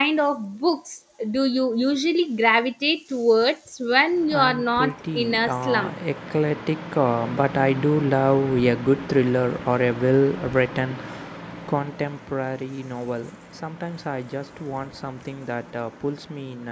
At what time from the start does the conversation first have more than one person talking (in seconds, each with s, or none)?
4.2 s